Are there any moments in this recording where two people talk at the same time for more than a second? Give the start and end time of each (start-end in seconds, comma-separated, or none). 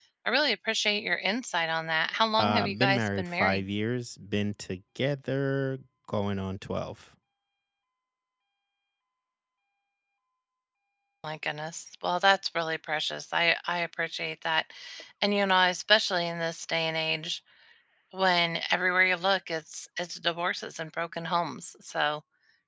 2.4-3.6